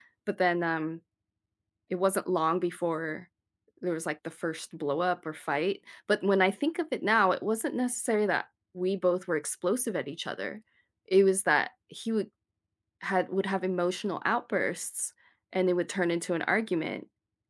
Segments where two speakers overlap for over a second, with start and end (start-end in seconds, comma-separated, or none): none